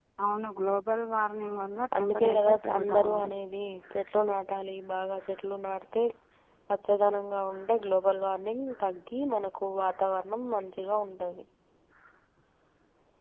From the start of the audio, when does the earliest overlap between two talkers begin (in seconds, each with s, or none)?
1.9 s